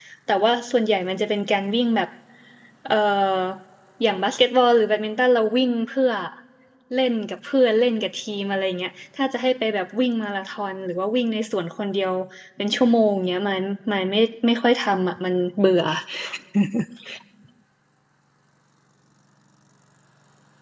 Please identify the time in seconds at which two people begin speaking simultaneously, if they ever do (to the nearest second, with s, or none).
none